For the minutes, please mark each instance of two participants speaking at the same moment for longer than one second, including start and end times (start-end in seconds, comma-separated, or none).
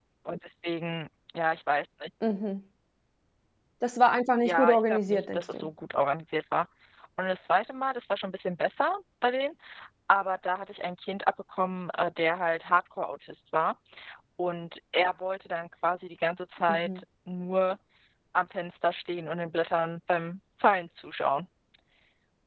4.5-5.7